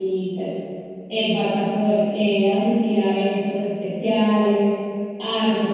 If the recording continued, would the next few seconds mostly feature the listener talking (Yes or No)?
Yes